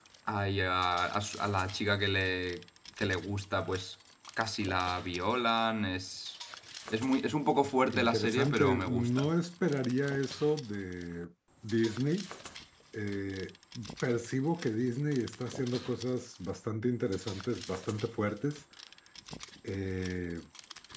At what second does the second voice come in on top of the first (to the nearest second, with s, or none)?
8 s